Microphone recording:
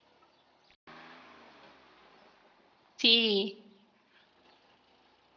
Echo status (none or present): none